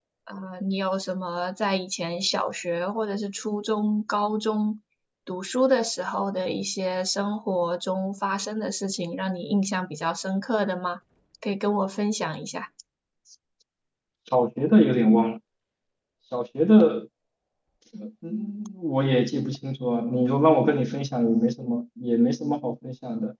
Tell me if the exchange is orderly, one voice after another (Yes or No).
Yes